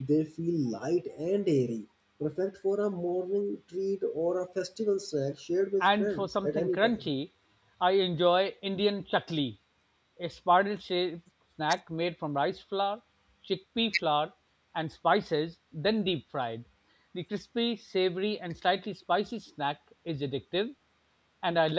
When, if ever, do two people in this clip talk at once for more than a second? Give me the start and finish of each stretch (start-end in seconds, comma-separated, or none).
5.8-7.1